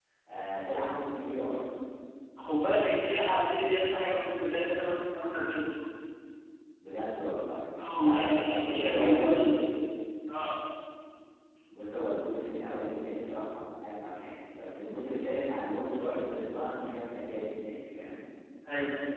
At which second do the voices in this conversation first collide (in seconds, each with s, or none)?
7.8 s